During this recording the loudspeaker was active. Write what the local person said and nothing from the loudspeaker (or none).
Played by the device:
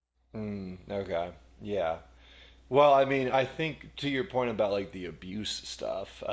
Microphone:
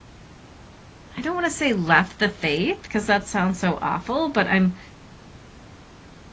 I don't want to say left the faith because that sounds so awful, but I'm